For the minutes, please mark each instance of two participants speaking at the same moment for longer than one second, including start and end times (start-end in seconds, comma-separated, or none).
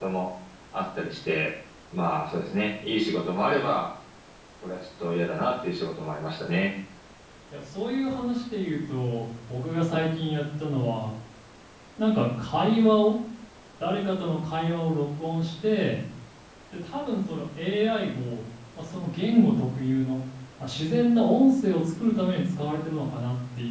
none